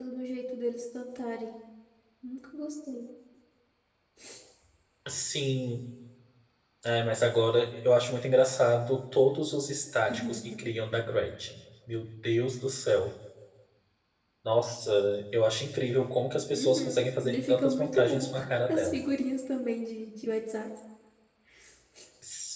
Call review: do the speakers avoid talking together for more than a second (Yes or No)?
No